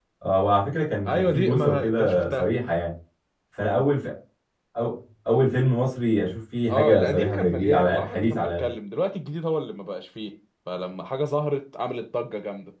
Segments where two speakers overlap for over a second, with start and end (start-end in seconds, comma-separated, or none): 1.1-2.5, 6.7-8.7